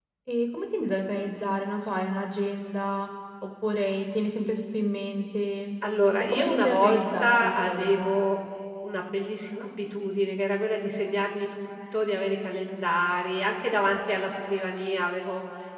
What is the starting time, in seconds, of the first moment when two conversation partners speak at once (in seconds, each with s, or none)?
6.3 s